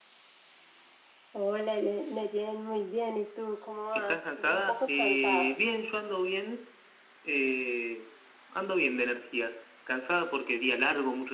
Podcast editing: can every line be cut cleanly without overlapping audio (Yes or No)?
No